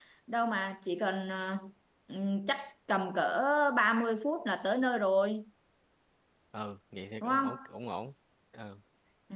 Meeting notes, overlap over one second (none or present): none